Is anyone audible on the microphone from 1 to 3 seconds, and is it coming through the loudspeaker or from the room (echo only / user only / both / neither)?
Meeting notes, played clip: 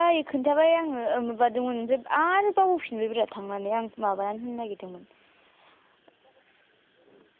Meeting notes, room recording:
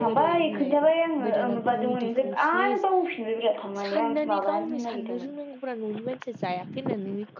both